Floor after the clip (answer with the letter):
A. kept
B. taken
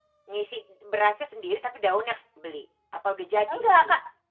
B